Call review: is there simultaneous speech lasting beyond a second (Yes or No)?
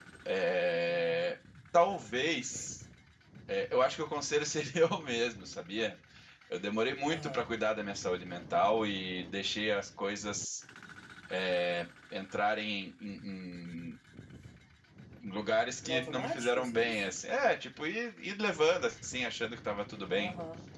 Yes